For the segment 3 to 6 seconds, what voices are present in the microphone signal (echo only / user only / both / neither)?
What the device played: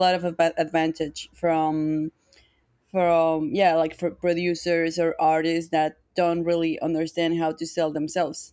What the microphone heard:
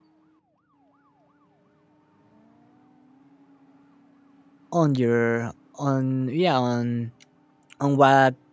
user only